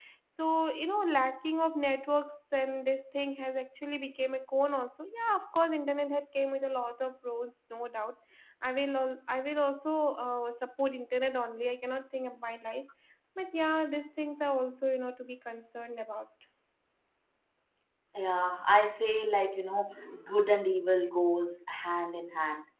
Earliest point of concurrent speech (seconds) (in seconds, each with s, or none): none